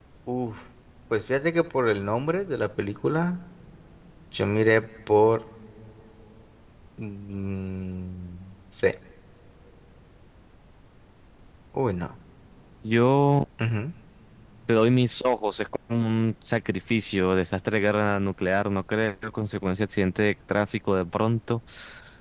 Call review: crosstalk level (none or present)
none